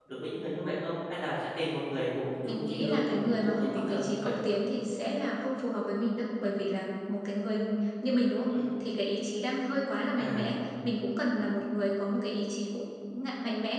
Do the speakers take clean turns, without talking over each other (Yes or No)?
No